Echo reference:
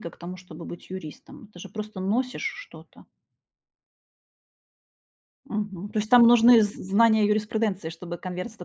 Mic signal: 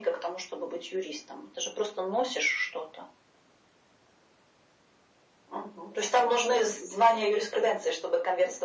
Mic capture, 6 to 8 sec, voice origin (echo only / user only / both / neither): echo only